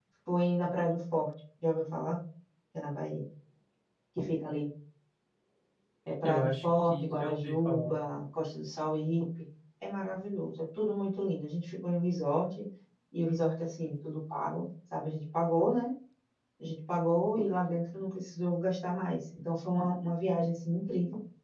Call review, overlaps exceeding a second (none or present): present